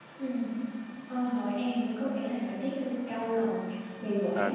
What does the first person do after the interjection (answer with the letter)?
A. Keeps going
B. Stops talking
B